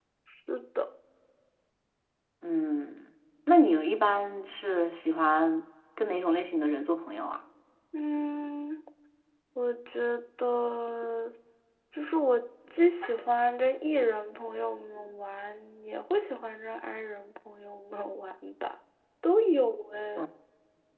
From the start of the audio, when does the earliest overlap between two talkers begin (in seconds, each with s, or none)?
none